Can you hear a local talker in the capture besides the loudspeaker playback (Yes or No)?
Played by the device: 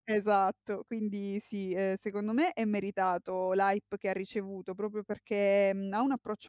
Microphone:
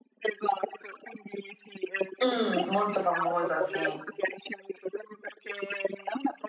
Yes